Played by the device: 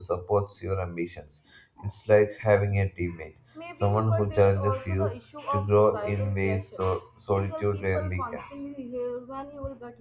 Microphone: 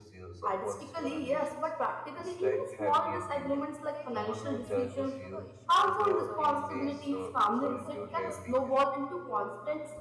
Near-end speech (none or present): present